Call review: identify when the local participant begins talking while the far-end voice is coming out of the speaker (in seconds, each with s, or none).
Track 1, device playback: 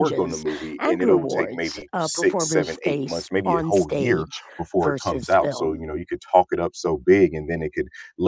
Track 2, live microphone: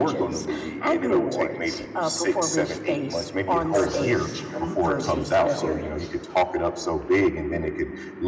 3.7 s